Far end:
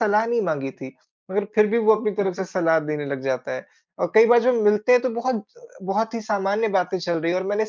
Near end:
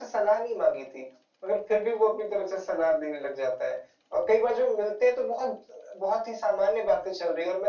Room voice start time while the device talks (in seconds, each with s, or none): none